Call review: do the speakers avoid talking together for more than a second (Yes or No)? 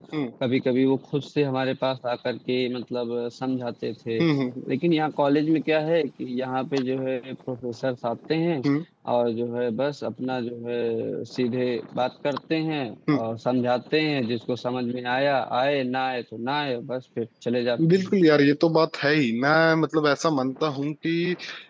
Yes